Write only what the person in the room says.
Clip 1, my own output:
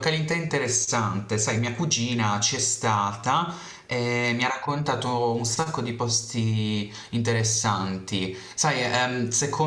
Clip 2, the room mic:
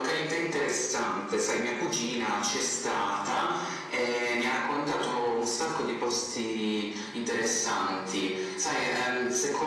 none

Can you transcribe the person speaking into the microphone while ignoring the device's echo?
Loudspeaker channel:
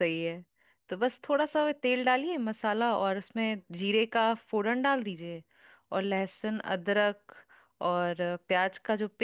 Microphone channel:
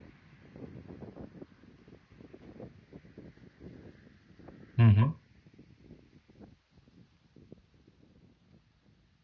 हम्म

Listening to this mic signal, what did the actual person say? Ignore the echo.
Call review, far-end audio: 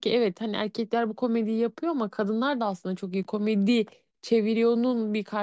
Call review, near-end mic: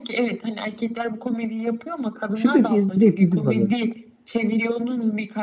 Şimdi izleyecek dizi var.

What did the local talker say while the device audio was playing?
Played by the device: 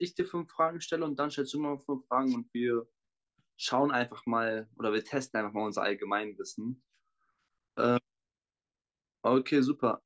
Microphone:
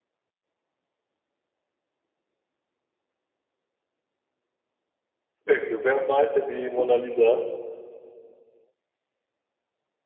Okay, wer malte die Mona Lisa?

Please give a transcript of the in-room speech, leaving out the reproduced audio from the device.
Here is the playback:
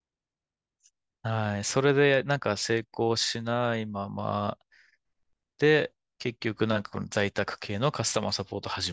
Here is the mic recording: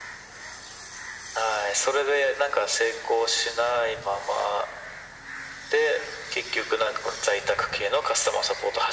none

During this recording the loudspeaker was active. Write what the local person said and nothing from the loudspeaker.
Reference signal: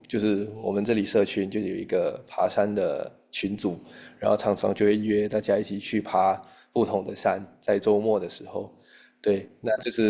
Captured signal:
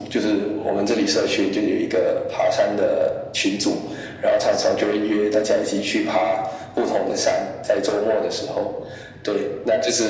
none

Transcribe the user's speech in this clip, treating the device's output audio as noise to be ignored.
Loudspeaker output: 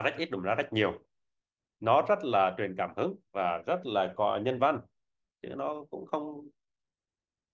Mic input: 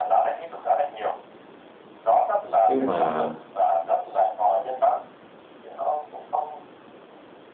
chứ mà

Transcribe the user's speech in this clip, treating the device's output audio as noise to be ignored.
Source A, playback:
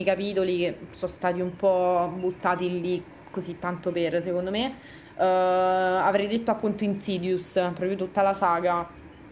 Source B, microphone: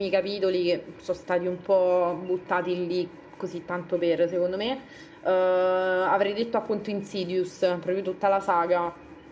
none

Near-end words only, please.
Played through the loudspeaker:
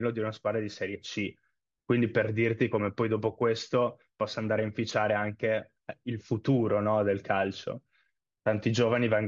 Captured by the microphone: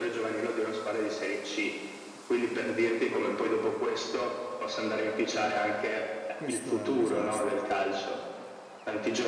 questo è un disastro.

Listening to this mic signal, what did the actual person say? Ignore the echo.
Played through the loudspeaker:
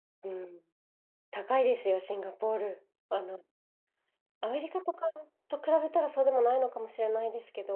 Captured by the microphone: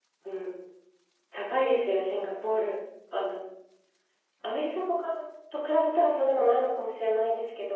none

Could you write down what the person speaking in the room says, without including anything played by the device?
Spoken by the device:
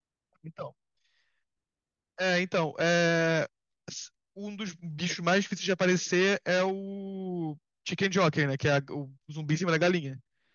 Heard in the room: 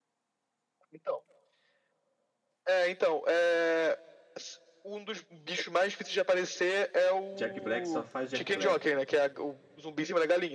Jack Black só faz Jack Black.

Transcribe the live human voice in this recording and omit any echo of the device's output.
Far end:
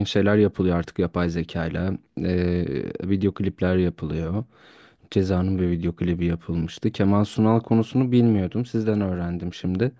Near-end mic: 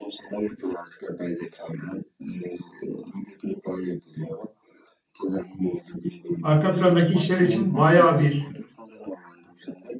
arka plandaki işler için bayağı bir

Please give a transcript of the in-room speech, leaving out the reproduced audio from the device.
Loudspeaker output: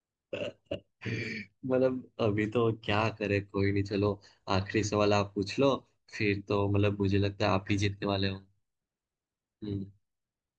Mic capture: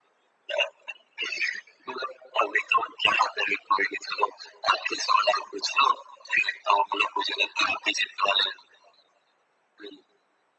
none

